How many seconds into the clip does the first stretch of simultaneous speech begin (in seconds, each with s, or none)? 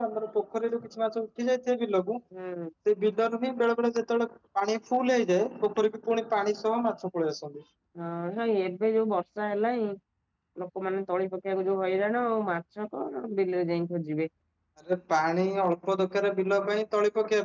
none